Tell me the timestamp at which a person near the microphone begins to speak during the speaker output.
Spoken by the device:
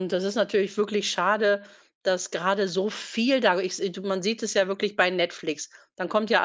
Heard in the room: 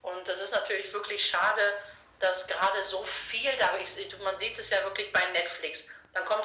none

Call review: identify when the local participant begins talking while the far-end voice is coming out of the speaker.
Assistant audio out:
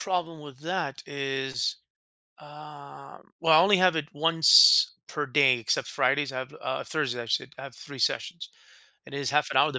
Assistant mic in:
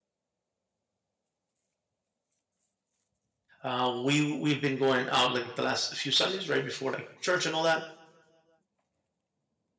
4 s

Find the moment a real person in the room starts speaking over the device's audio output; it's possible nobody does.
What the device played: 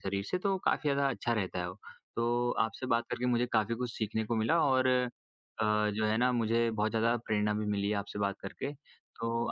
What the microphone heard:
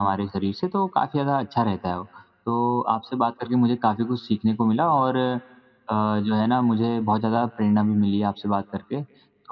none

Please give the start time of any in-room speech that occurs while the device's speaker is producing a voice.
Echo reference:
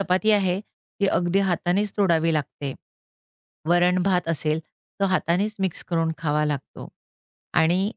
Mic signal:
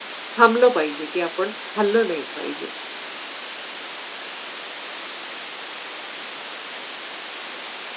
0 s

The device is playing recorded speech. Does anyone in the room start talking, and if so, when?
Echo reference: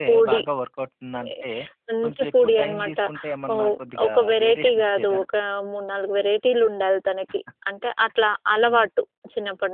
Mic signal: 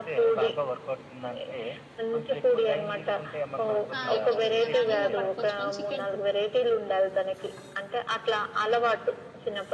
4 s

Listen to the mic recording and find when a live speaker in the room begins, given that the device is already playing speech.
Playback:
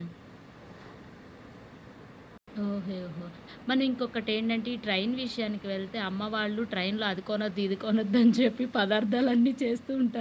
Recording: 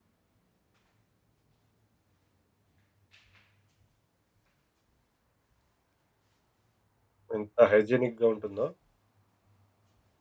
7 s

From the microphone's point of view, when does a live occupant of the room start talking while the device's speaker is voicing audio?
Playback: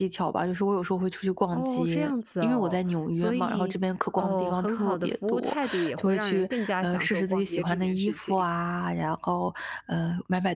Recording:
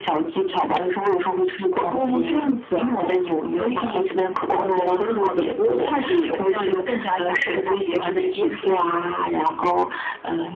none

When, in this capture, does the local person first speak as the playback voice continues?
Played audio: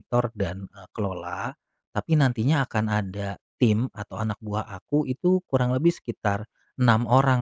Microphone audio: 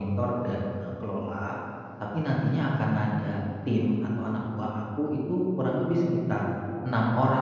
none

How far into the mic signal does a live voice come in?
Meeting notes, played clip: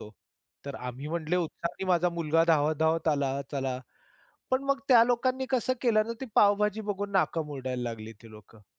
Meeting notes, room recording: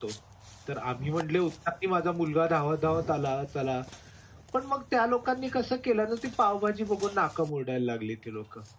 none

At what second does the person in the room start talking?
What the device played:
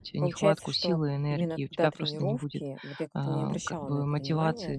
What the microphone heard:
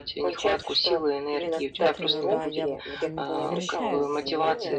1 s

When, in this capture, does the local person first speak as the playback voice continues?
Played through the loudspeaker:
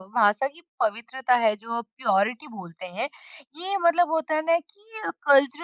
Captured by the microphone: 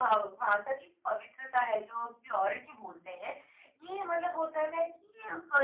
none

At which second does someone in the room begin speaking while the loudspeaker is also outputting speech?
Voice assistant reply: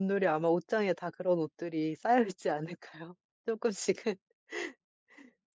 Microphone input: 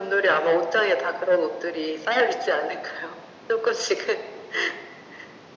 none

